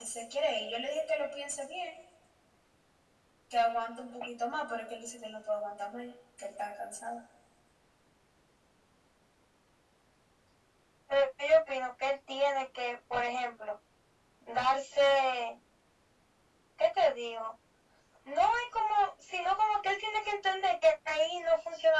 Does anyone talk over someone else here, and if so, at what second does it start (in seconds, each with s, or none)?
none